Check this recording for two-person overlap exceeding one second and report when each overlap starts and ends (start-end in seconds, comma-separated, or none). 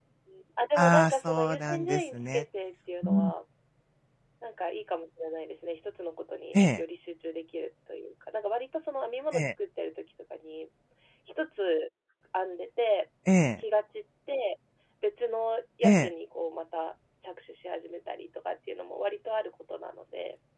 0.8-2.4